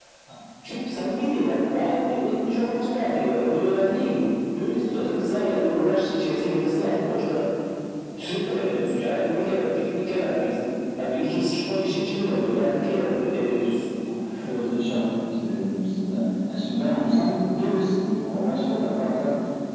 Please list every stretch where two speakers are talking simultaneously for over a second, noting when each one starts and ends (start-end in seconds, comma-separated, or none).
none